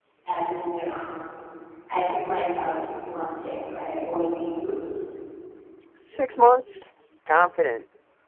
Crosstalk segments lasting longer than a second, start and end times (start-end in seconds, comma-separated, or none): none